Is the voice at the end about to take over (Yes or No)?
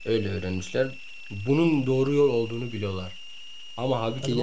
No